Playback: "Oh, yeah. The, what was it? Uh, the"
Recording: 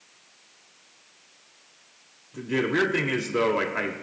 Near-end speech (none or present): present